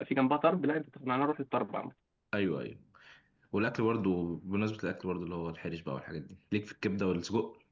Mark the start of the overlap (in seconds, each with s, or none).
none